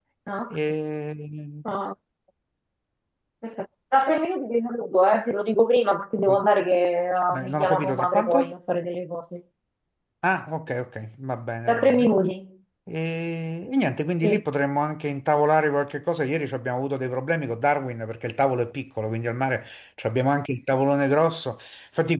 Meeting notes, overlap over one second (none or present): present